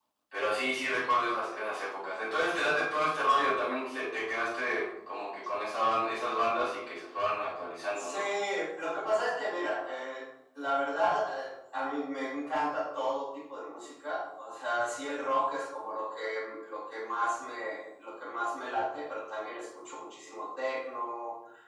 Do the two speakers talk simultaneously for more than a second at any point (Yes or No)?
No